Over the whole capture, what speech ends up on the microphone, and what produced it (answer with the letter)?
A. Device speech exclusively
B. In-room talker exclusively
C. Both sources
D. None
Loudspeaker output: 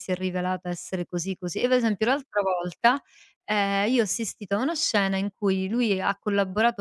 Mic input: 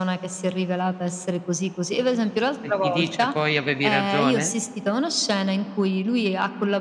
C